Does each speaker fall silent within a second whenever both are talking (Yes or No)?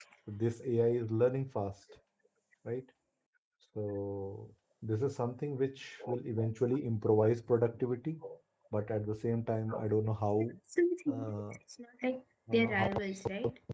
Yes